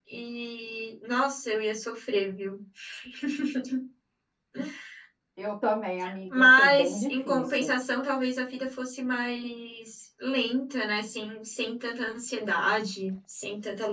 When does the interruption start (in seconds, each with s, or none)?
6.3 s